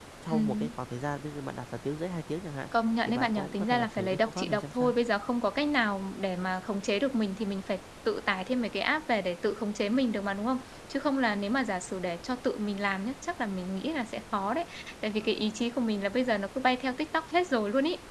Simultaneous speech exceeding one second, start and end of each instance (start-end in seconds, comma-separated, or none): 3.1-4.9